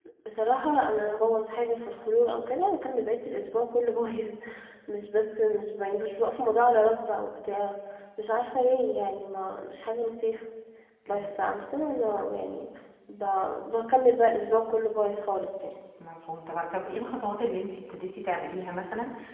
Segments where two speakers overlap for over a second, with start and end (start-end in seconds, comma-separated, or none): none